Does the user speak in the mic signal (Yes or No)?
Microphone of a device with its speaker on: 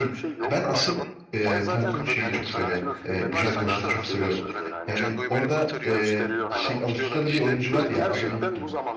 Yes